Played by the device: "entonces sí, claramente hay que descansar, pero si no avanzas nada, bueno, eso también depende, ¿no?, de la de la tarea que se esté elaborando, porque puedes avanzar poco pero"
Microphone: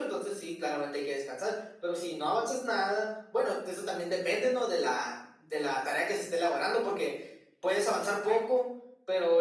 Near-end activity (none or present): none